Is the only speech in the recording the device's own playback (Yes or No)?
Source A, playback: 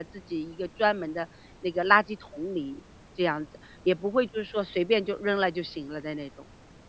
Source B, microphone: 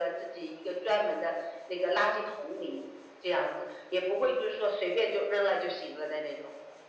Yes